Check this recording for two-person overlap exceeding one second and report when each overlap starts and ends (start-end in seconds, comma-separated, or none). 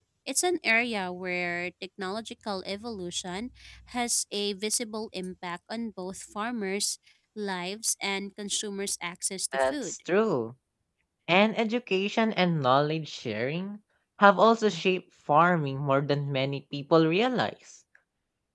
none